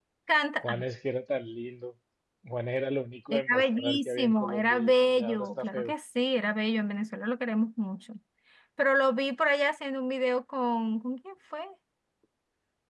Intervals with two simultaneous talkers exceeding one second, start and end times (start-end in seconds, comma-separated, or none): 3.3-5.9